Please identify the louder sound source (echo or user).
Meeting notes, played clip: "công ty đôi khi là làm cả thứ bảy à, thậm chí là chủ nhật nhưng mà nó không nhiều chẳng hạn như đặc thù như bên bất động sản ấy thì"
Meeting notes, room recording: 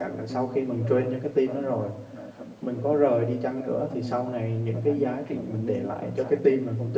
user